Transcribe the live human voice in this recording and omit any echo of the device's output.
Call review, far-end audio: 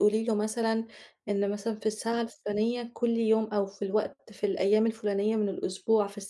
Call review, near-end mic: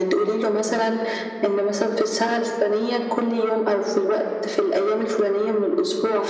none

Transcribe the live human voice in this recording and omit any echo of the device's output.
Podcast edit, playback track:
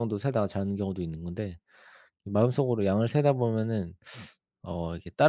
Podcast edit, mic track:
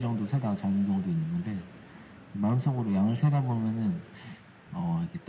none

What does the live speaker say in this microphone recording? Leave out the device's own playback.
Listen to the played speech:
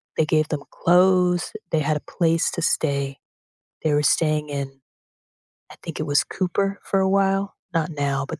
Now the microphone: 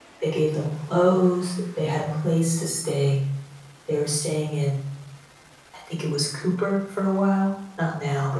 none

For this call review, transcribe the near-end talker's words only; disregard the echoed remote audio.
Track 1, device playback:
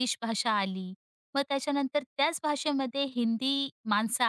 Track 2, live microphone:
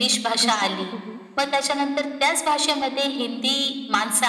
कसा होतो हो?

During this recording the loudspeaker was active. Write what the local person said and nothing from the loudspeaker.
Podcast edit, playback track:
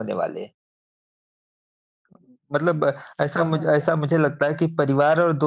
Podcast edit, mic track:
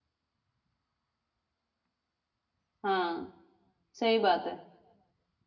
हाँ। सही बात है।

